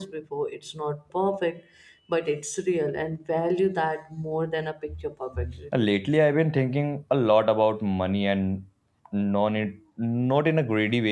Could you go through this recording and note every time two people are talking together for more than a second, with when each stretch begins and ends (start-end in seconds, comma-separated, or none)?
none